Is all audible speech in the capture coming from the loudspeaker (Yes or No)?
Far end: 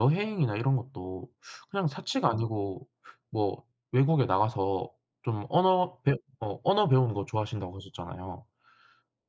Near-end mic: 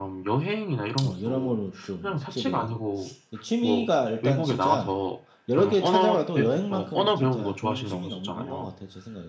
No